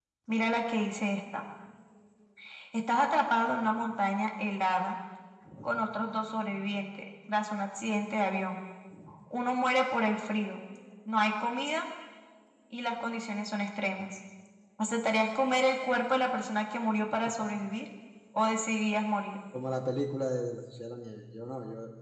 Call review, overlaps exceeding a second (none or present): none